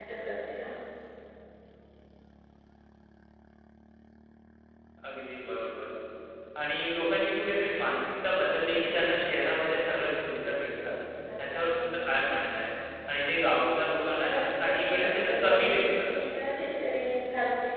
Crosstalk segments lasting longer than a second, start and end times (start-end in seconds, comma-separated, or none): 14.2-16.1